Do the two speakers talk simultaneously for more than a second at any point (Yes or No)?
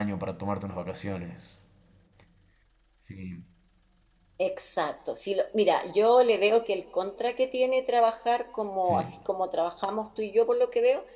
No